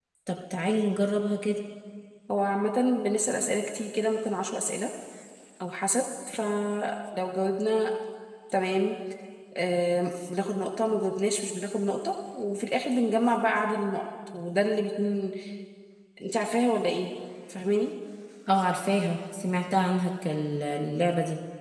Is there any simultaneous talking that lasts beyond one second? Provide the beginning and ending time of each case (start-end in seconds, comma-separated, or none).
none